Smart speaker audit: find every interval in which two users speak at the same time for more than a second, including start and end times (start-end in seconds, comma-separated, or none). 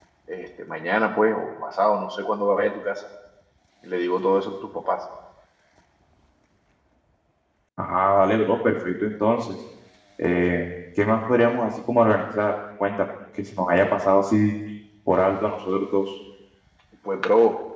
none